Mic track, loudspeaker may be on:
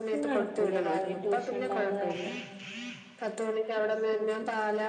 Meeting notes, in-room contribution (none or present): present